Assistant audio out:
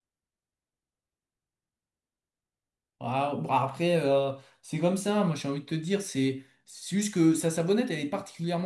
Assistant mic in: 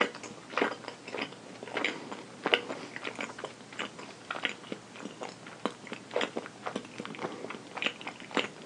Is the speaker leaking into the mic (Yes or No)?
No